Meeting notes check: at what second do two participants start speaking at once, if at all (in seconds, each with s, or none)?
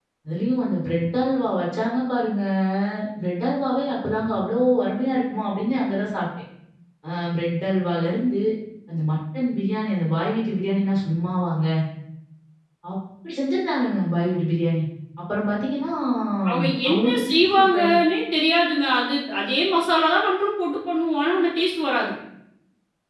16.6 s